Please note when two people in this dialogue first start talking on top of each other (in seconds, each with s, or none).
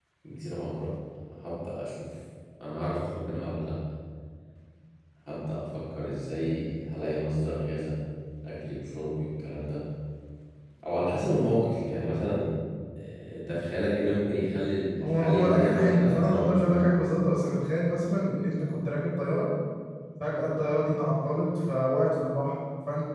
15.0 s